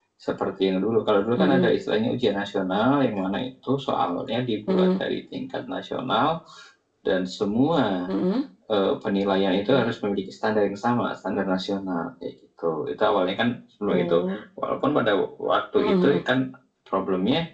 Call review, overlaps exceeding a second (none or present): none